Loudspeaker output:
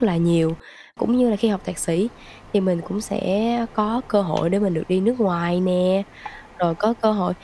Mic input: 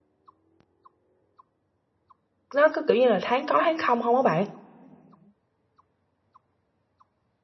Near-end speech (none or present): present